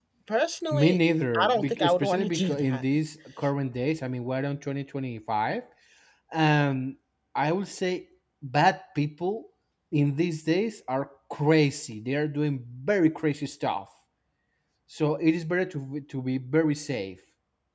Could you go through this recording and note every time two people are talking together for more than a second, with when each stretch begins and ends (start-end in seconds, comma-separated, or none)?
1.4-2.8